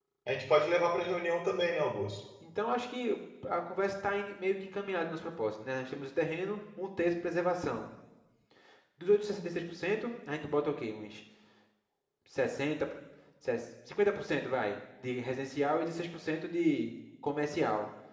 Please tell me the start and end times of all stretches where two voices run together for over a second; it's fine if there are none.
none

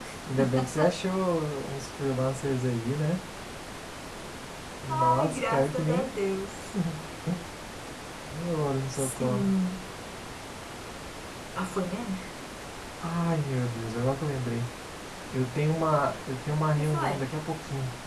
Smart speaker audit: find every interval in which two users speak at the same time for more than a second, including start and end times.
4.9-6.2

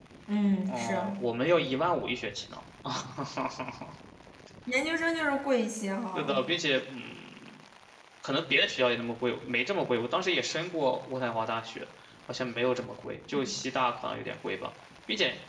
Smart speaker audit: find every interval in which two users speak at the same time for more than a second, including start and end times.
none

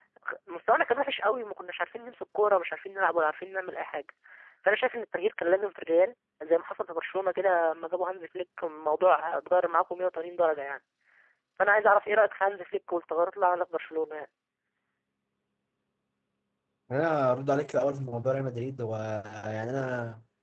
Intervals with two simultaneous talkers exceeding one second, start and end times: none

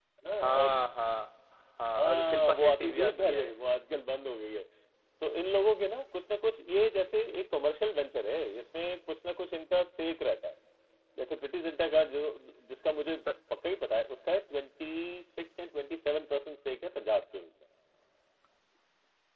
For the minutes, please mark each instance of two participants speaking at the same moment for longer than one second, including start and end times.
2.0-3.5

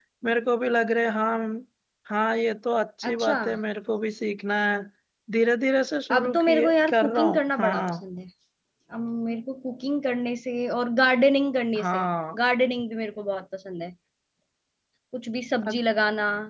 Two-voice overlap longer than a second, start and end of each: 6.1-8.0

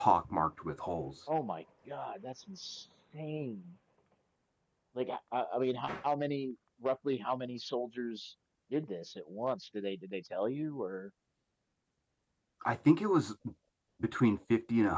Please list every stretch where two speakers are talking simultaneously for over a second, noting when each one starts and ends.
none

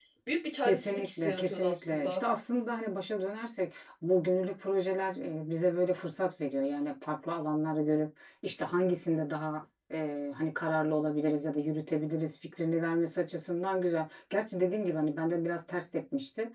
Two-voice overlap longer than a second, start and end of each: 0.7-2.2

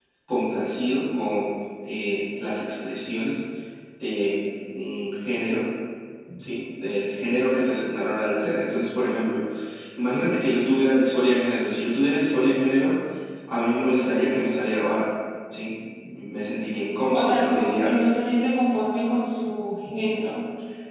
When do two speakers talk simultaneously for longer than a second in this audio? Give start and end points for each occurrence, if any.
16.7-17.9

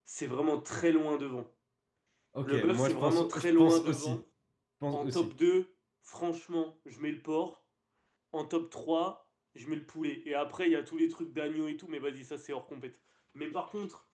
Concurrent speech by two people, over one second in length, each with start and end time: 2.4-4.2

